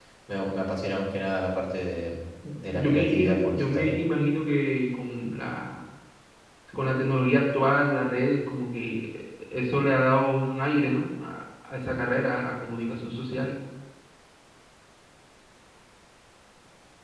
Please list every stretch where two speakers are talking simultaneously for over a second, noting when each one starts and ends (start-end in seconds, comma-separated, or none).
2.7-4.0